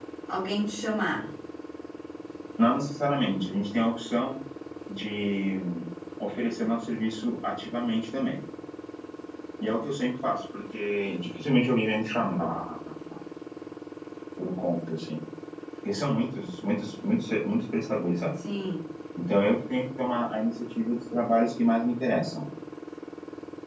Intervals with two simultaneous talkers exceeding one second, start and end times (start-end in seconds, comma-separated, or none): none